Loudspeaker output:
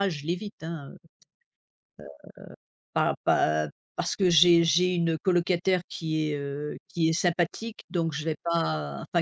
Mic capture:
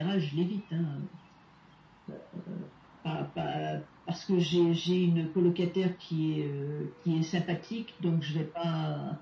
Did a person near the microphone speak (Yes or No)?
No